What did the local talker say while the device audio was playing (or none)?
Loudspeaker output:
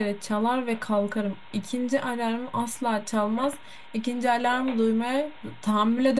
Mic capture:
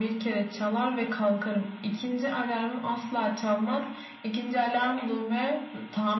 none